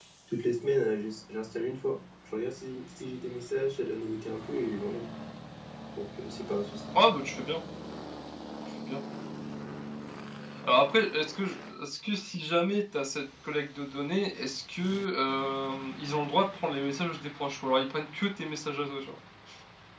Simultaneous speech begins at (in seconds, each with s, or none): none